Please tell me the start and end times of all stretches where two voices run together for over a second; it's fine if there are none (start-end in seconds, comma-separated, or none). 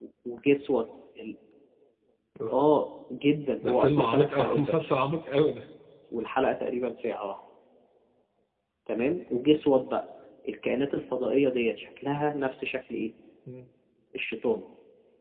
3.7-4.9